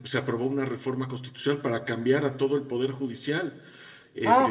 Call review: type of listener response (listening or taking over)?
listening